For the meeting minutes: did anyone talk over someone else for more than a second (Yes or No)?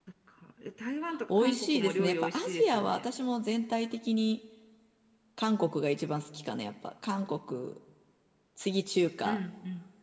Yes